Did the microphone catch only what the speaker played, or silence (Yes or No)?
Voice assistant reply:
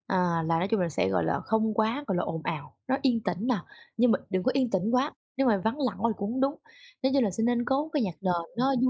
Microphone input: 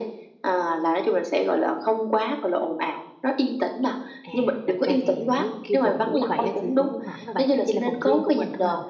No